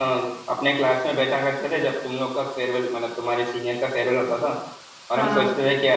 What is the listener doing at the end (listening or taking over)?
listening